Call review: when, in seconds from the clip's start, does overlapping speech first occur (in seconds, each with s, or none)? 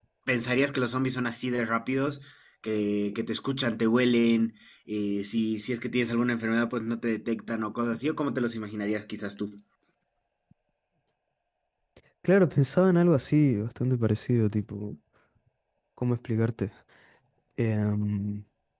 none